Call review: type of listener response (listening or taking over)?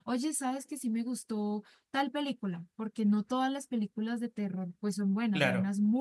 taking over